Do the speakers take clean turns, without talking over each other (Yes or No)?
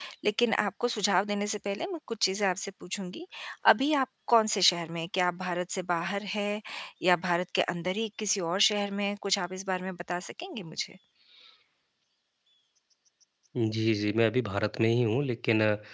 Yes